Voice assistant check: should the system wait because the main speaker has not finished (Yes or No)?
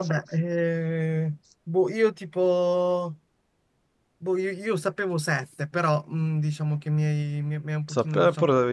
No